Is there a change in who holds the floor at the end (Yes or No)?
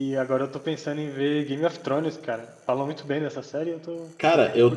Yes